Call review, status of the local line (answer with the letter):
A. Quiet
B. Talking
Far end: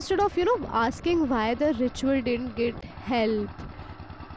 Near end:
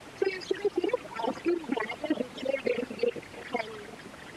A